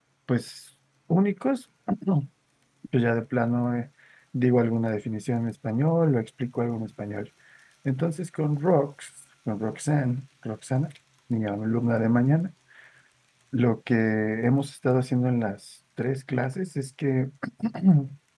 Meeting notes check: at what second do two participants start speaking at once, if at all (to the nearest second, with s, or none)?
none